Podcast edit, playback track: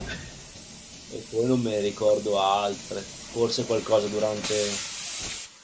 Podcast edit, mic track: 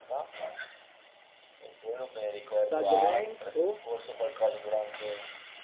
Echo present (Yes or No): Yes